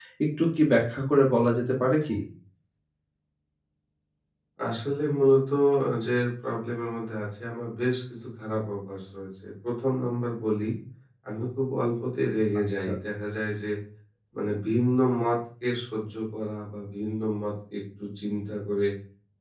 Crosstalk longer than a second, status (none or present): none